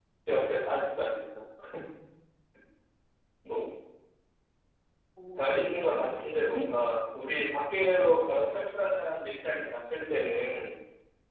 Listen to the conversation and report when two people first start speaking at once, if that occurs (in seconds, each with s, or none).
5.4 s